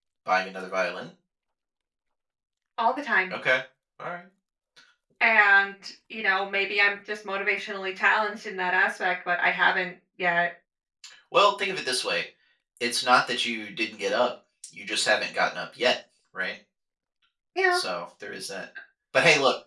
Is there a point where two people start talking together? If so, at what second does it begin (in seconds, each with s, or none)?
none